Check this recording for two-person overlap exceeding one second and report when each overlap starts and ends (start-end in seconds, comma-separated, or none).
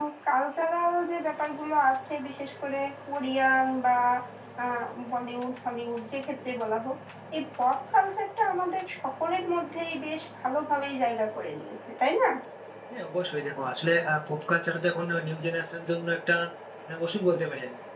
none